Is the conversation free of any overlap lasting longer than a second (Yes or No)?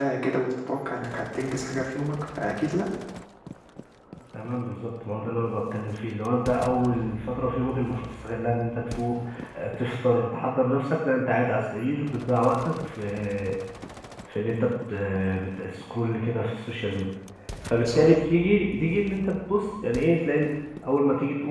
Yes